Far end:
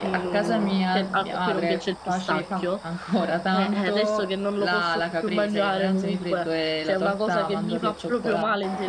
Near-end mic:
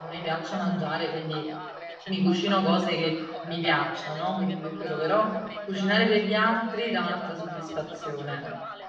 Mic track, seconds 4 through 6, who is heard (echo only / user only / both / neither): both